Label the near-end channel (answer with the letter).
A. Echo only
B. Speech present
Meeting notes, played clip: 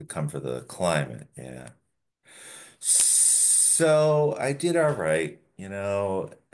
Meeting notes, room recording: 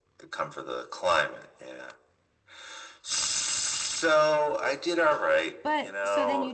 B